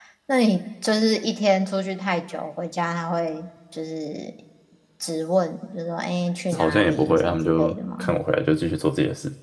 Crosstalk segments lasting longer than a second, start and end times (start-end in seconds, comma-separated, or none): 6.6-8.2